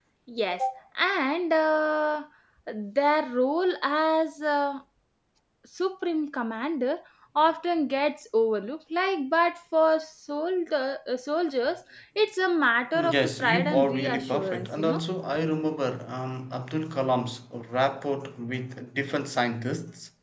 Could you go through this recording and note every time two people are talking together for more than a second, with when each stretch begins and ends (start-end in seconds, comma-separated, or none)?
12.9-15.0